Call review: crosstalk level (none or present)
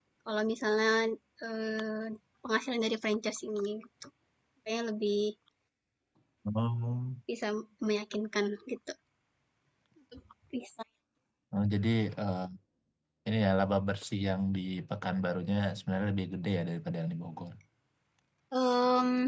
none